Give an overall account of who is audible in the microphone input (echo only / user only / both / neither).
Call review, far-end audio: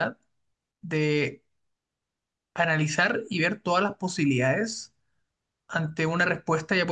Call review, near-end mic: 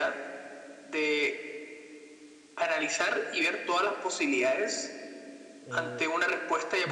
both